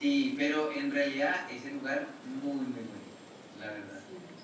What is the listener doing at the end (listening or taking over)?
taking over